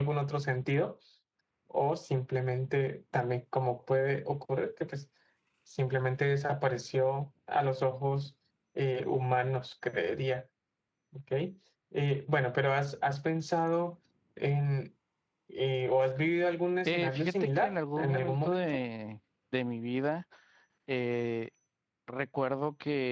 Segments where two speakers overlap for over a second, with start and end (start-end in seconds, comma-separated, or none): 16.9-18.8